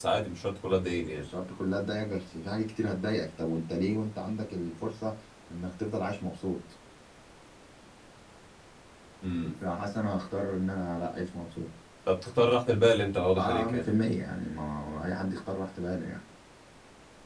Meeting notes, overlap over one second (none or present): none